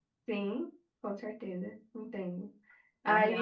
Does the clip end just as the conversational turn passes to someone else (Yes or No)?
Yes